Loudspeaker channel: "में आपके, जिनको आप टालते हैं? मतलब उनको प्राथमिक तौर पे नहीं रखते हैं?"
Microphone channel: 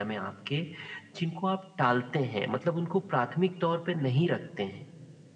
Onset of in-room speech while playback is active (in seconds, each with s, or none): none